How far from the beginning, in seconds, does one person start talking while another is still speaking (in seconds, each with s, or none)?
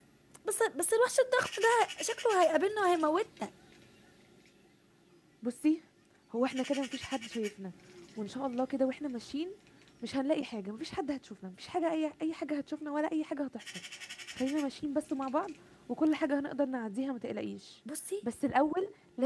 none